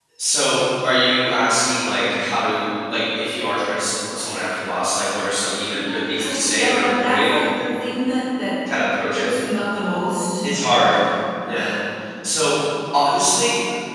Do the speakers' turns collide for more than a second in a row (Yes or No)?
Yes